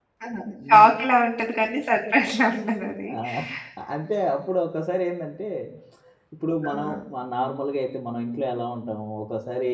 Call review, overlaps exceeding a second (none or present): none